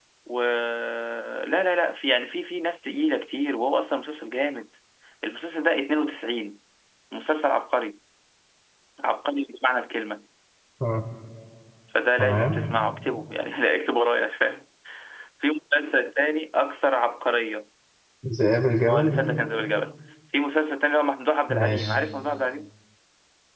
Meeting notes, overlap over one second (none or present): none